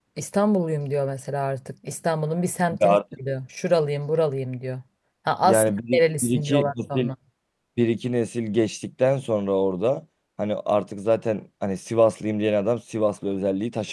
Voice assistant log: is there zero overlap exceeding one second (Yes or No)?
No